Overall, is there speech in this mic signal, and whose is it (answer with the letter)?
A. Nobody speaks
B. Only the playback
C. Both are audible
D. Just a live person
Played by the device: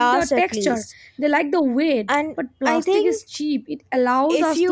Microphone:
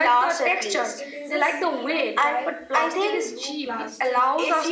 C